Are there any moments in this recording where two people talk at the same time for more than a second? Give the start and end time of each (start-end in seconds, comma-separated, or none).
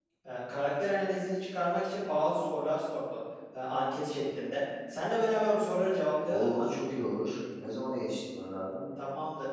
none